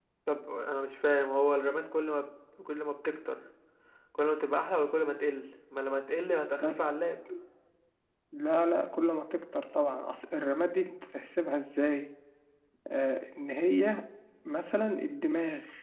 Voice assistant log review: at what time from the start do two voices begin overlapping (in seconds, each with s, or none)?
none